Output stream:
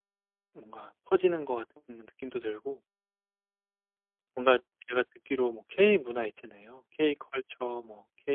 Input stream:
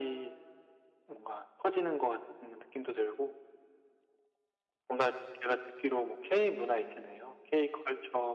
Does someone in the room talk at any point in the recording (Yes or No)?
No